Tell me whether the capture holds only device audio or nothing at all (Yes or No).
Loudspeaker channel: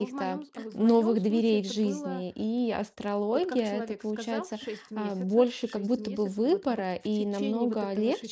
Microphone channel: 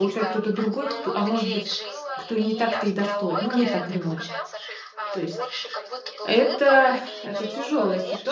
No